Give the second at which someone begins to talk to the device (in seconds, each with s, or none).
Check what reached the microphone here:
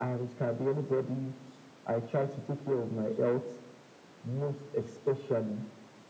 none